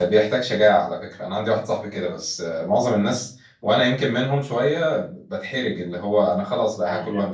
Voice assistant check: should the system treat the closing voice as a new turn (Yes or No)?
Yes